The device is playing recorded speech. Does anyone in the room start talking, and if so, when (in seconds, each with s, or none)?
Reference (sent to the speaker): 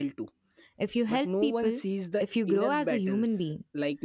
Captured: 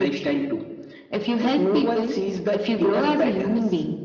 none